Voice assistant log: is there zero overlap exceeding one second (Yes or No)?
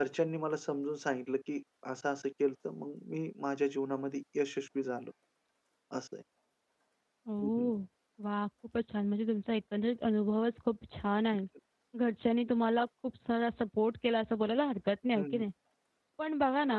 Yes